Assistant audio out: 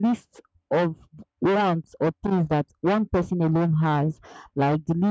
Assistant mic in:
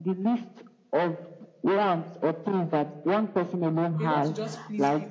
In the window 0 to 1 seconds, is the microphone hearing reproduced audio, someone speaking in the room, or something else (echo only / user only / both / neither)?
echo only